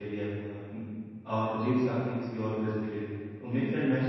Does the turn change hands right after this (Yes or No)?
No